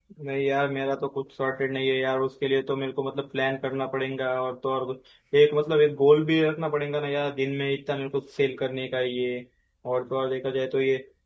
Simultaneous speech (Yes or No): No